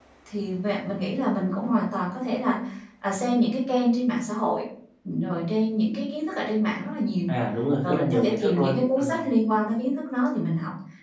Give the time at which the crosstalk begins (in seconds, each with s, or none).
7.8 s